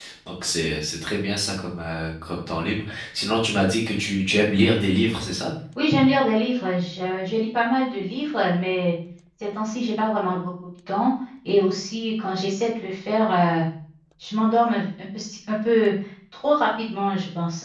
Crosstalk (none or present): none